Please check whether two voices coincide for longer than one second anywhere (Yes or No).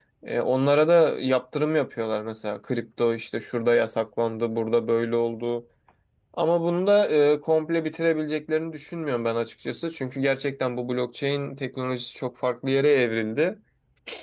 No